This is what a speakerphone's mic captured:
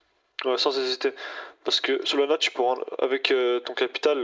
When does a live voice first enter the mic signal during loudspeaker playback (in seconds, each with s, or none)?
none